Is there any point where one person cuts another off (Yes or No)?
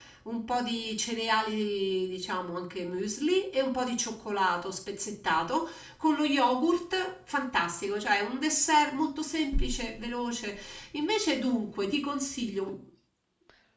No